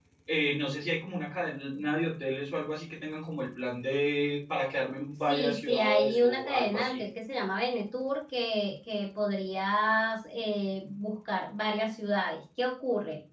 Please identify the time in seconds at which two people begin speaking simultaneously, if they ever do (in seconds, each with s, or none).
5.3 s